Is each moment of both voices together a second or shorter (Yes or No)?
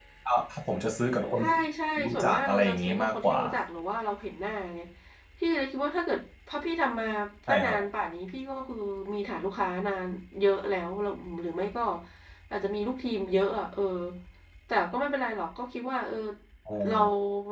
No